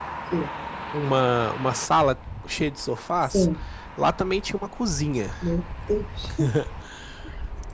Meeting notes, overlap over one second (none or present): none